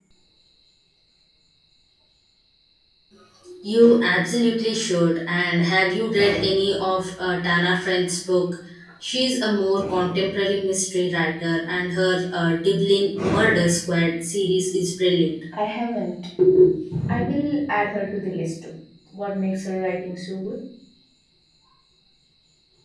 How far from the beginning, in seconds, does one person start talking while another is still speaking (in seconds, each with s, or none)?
none